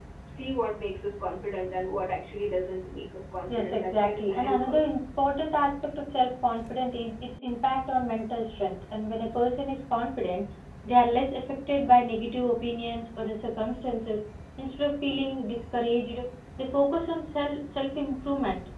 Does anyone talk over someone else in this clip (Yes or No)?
Yes